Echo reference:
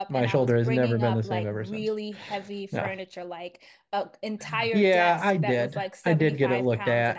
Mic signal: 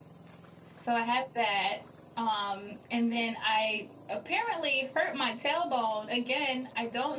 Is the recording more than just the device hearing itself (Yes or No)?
Yes